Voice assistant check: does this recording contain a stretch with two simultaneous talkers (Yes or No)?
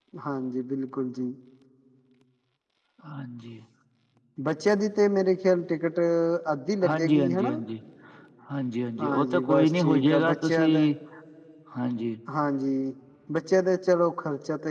Yes